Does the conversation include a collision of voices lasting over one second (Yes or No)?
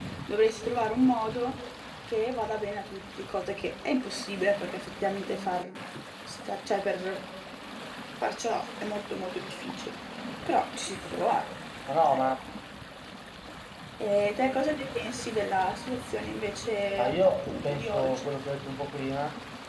Yes